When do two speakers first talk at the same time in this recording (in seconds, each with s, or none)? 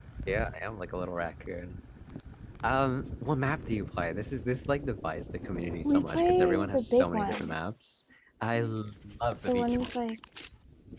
5.8 s